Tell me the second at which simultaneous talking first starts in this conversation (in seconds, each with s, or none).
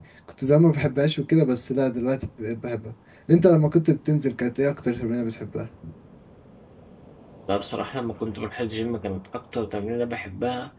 none